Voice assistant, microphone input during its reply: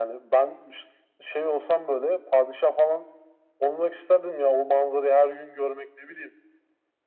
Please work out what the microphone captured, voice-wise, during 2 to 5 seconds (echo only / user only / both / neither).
echo only